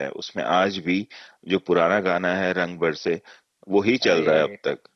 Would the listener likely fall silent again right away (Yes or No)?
Yes